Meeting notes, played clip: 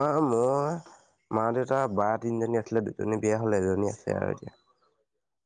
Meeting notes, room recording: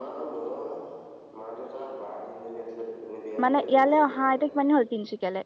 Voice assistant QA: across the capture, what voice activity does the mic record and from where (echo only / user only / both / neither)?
both